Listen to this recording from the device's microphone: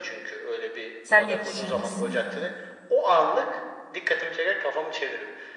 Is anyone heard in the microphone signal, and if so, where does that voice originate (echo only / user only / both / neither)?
both